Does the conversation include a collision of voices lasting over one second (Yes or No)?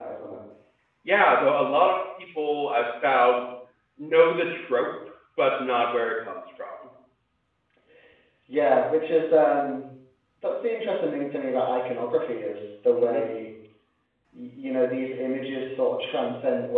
No